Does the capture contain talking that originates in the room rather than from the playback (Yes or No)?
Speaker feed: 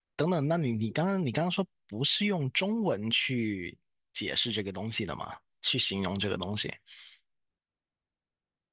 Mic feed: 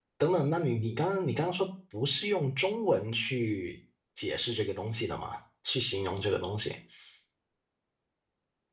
No